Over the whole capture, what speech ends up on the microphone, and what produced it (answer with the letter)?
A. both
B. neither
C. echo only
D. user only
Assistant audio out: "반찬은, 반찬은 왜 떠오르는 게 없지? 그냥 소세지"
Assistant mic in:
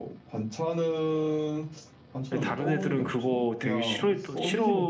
A